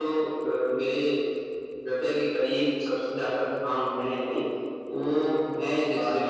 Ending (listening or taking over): listening